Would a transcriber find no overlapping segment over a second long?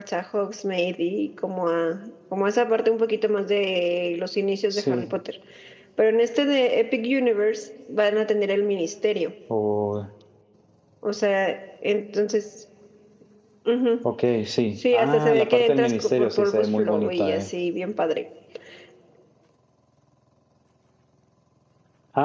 No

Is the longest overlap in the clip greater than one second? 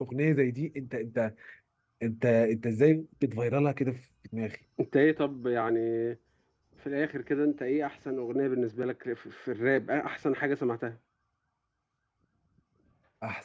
No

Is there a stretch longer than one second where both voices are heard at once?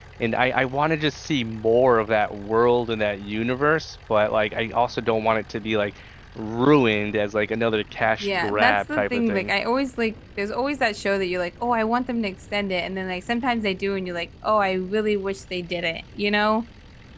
Yes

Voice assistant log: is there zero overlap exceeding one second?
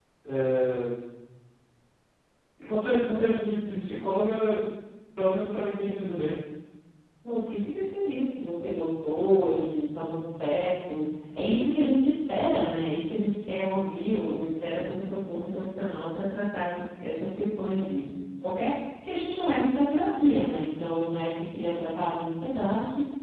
Yes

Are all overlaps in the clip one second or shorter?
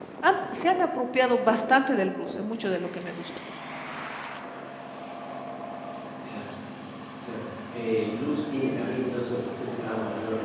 Yes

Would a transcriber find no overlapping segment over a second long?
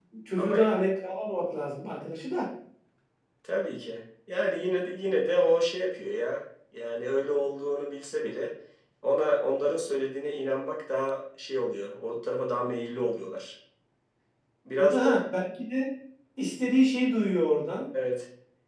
Yes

